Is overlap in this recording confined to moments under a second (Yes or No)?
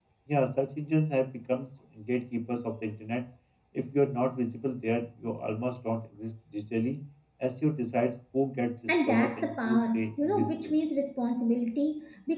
No